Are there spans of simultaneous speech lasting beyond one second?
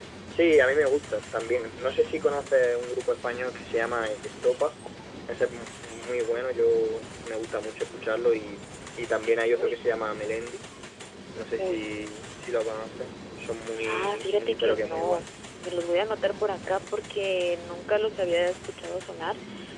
Yes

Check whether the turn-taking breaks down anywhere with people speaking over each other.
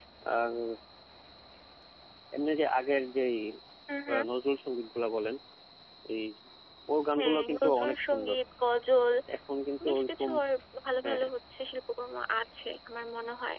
Yes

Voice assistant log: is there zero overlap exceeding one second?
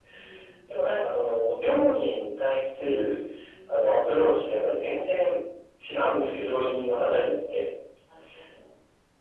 Yes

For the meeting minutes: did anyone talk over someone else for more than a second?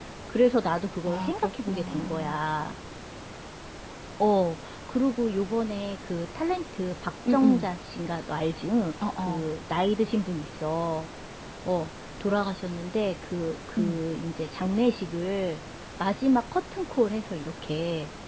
Yes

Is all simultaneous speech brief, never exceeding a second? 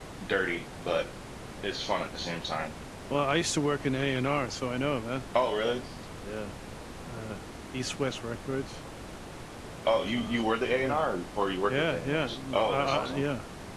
No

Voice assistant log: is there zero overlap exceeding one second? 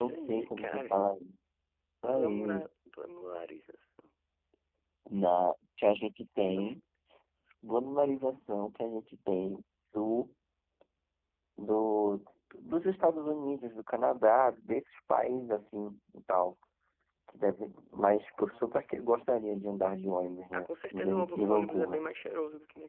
No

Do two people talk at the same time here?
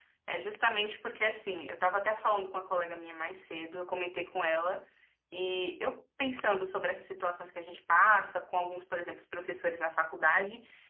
No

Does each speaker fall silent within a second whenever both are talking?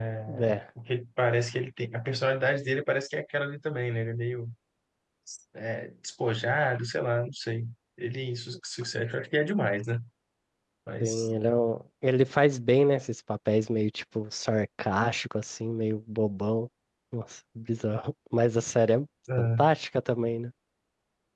Yes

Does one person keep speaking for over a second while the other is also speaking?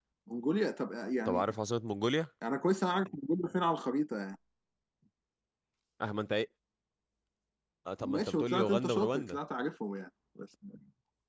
Yes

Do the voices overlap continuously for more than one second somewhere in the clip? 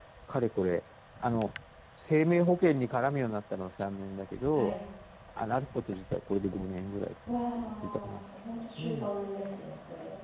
No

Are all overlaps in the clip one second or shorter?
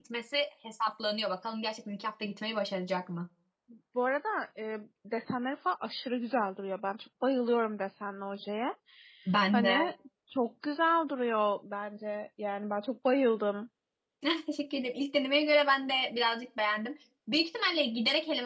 Yes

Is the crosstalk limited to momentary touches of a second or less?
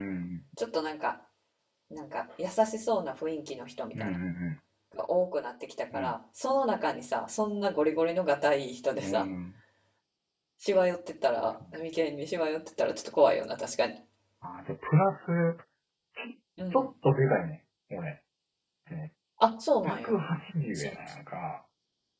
Yes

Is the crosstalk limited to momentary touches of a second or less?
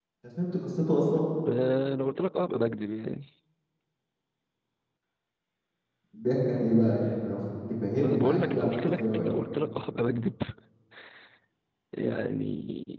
No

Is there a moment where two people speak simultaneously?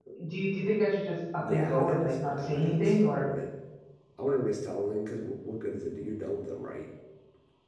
Yes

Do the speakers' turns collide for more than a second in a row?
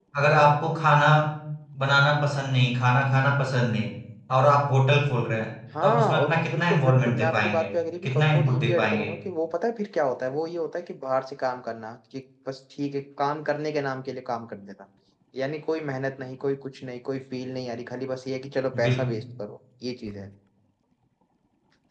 Yes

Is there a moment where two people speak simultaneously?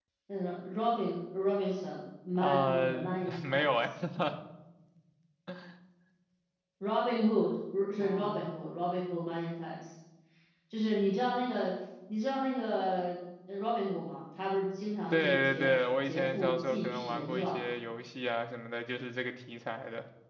Yes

